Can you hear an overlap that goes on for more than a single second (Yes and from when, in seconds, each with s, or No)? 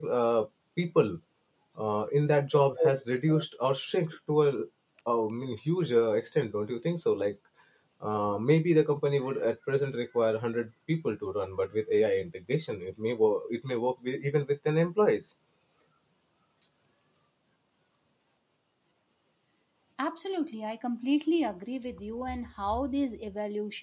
No